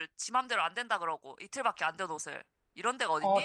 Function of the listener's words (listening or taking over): taking over